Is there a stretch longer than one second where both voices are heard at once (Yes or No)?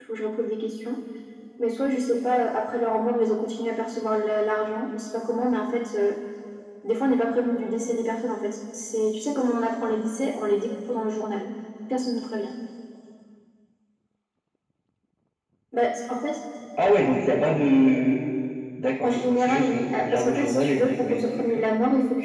Yes